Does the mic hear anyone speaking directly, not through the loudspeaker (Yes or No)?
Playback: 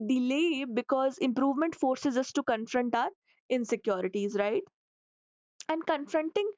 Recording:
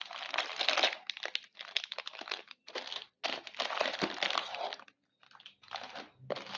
No